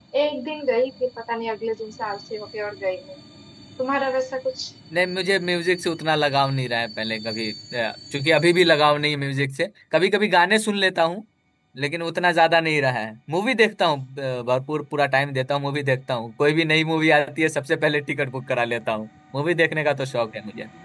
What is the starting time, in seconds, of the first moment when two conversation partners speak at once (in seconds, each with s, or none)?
none